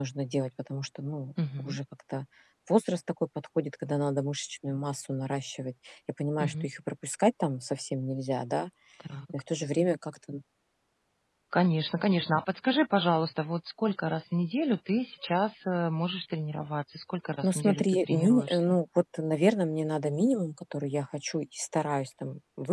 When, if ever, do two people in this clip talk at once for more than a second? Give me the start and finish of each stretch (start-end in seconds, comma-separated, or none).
17.4-18.8